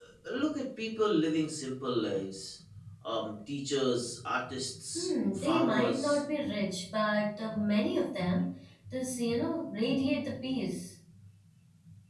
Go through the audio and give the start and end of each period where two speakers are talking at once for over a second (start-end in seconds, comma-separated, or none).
5.0-6.2